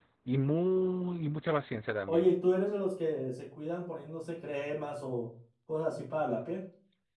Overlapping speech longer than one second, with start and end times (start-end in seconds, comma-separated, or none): none